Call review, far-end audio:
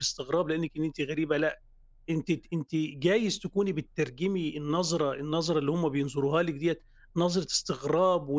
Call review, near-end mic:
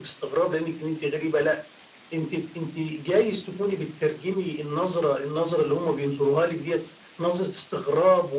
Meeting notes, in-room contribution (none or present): none